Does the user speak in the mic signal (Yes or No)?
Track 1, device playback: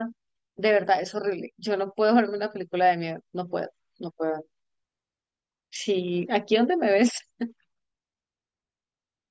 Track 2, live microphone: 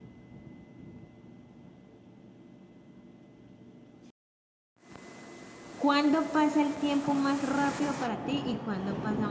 Yes